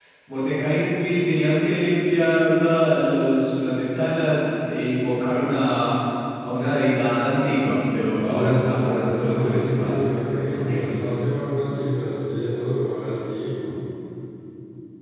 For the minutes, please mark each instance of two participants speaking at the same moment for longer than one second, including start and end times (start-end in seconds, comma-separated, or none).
8.2-11.0